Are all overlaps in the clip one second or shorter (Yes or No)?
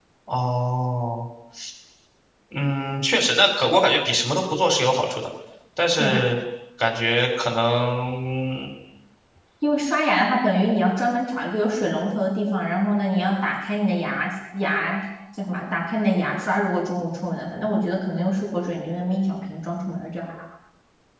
Yes